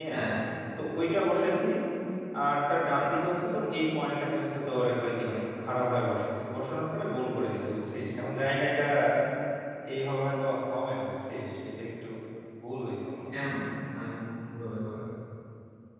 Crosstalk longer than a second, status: none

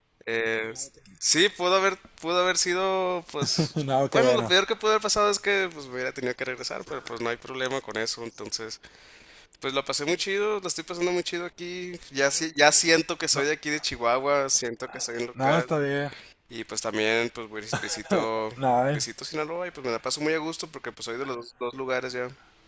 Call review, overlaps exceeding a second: none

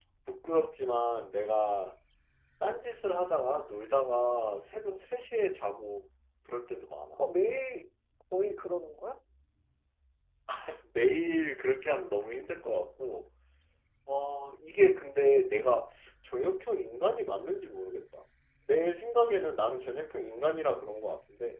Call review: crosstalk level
none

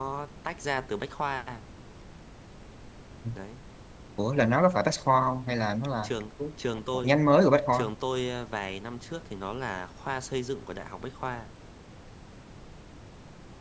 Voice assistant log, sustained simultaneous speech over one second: none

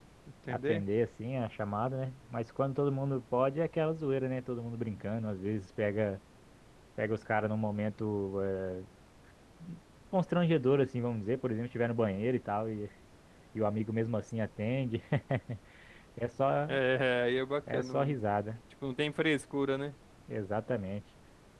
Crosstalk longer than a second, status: none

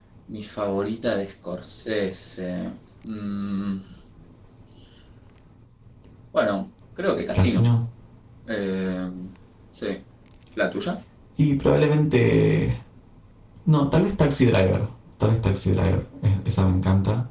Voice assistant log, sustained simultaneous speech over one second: none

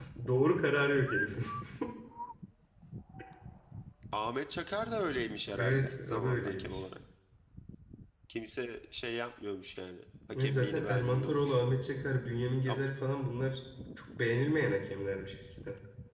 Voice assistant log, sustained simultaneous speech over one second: present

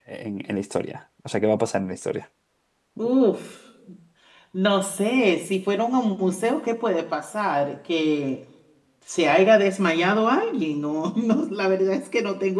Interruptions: none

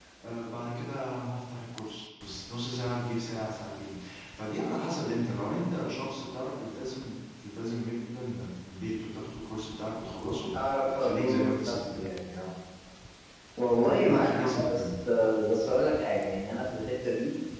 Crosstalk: present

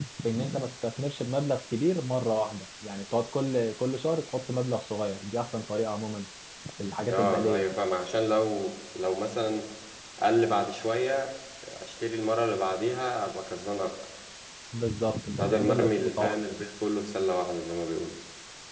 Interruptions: present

